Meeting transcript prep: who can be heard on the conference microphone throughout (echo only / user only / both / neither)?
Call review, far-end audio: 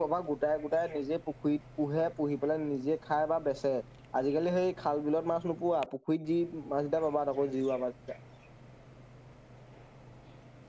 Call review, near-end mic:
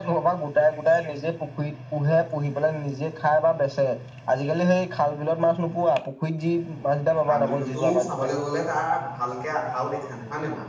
both